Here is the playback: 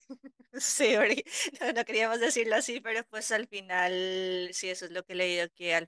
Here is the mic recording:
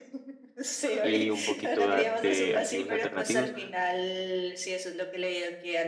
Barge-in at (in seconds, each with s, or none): 1.0 s